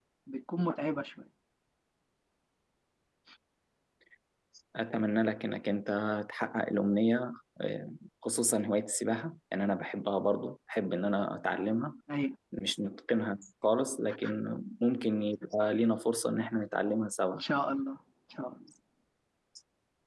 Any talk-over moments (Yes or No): No